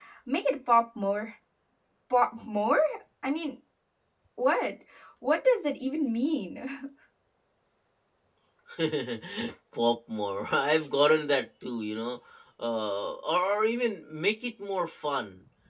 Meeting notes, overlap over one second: none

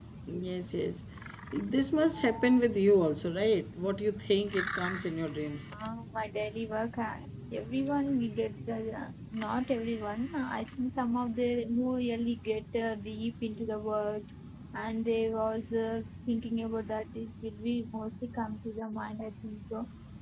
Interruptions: none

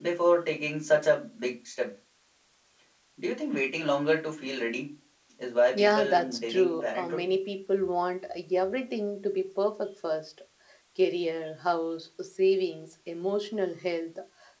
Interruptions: present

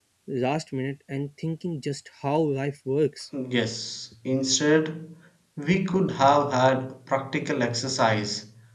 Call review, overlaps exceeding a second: none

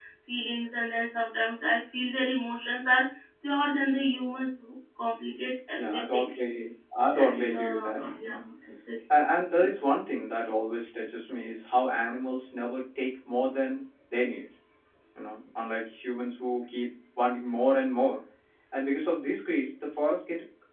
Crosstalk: present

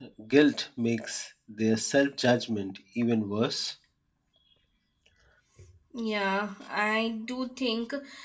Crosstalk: none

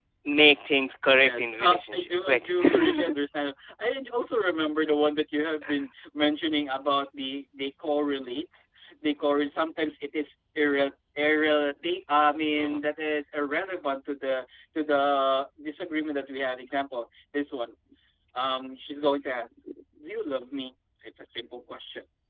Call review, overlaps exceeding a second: present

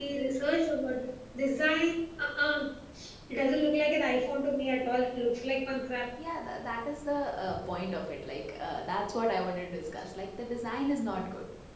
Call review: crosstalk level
none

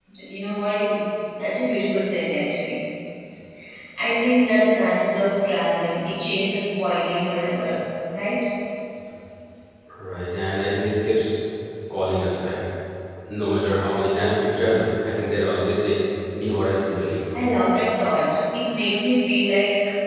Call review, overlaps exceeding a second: none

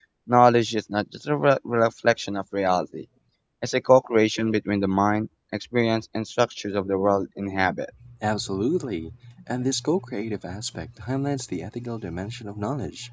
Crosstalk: none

